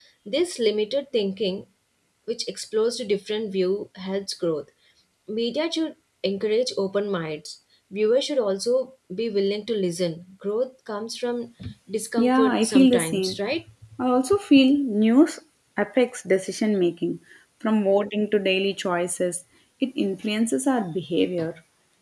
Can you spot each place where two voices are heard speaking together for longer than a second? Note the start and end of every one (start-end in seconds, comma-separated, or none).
12.2-13.4